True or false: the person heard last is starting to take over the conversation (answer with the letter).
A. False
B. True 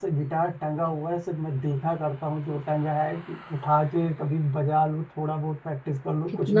B